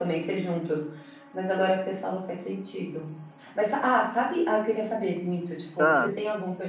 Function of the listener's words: listening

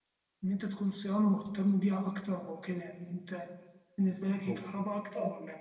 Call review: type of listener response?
listening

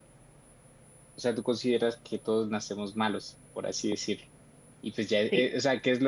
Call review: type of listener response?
listening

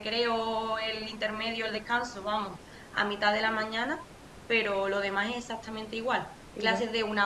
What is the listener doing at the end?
listening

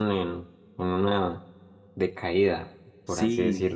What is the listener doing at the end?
taking over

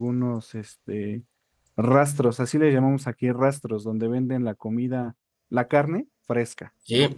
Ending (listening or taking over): taking over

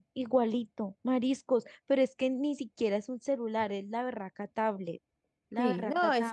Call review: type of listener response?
taking over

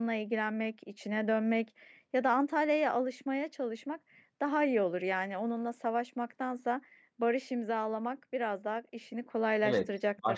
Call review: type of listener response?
taking over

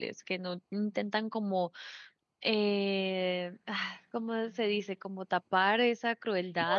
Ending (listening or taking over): listening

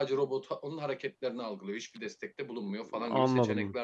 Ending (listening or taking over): taking over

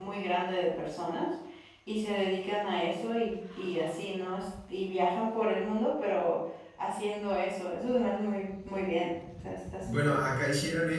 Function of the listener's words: taking over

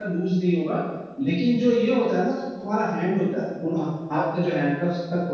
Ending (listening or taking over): listening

